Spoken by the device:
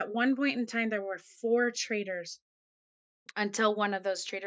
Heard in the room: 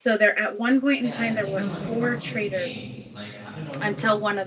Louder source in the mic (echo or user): echo